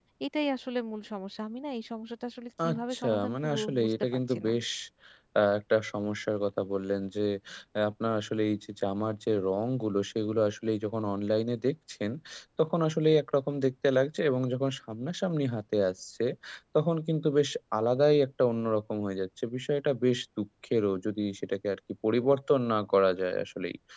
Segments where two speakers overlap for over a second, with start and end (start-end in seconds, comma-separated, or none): 2.7-4.5